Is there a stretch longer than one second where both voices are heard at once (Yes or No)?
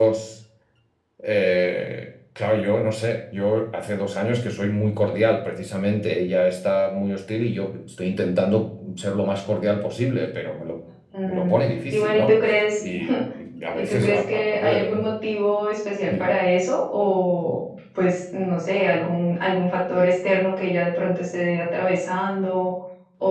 Yes